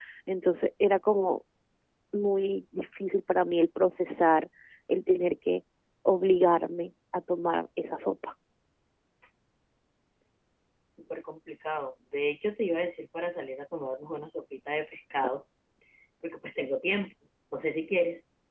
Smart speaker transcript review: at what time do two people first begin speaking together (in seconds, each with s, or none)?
none